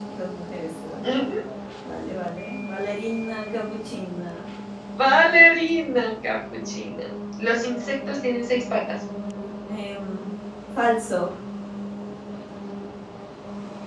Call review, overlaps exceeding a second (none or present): none